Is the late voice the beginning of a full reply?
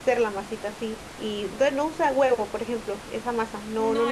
Yes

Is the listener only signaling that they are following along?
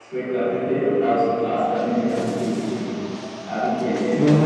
No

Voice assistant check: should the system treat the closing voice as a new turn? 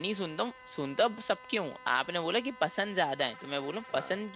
No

